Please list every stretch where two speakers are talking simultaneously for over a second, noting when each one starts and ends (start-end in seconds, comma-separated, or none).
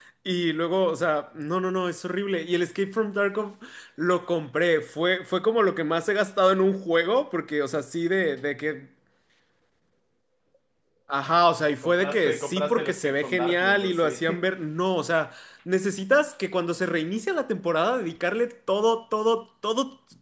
11.8-14.2